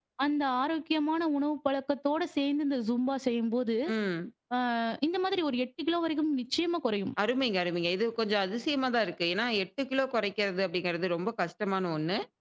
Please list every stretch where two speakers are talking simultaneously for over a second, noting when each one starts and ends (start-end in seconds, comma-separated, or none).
none